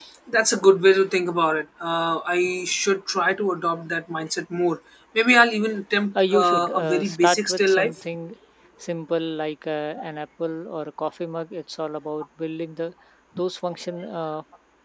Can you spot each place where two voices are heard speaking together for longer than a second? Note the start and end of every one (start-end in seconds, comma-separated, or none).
6.2-8.1